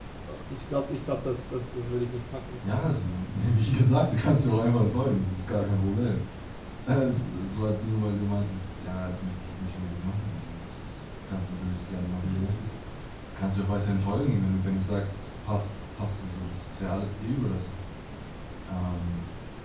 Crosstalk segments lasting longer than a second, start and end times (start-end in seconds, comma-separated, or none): none